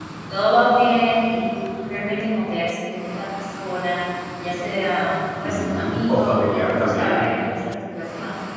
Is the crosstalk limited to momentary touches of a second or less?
No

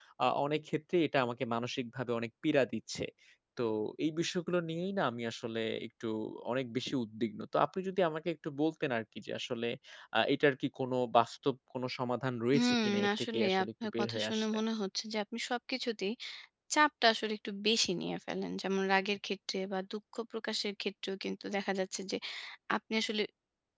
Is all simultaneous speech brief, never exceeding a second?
No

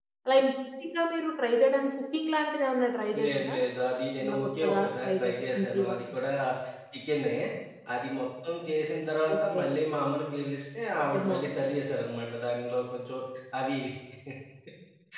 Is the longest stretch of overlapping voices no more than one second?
No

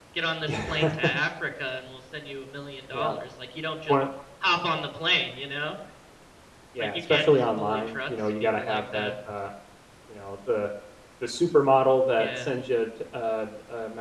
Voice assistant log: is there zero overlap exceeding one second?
No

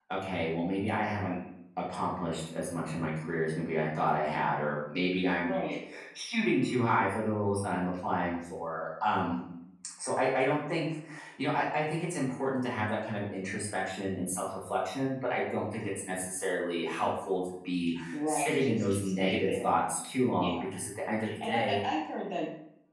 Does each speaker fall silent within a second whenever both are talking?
No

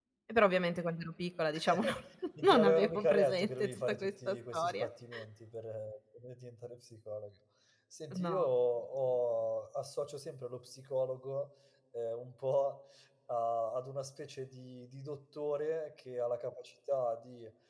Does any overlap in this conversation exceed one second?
Yes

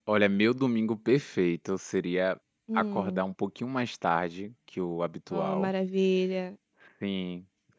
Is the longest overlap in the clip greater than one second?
No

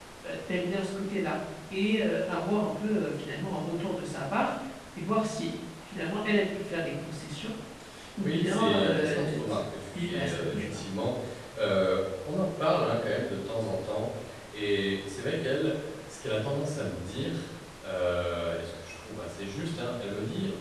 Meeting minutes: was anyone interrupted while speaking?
Yes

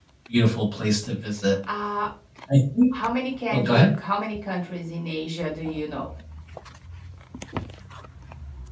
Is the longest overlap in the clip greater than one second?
No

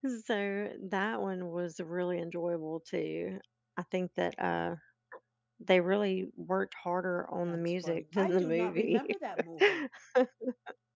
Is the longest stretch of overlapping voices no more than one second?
No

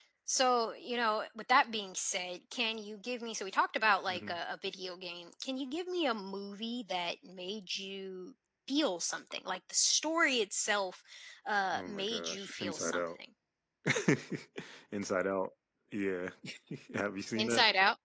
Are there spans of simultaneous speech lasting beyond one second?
Yes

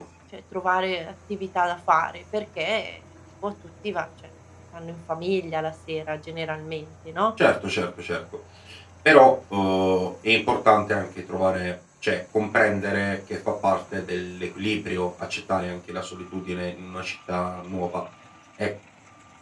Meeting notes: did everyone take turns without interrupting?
Yes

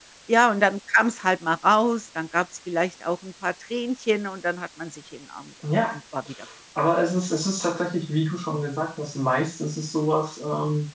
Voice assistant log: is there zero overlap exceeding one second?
Yes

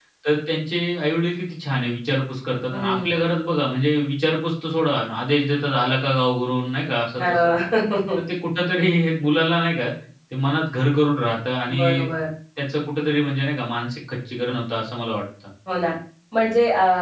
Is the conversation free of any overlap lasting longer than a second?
Yes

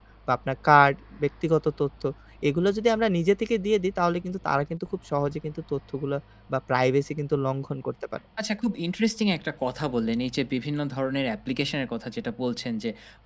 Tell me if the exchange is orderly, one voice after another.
Yes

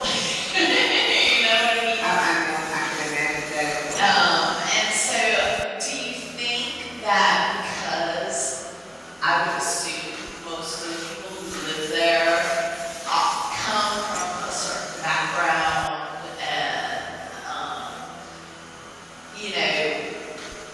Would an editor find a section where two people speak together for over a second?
No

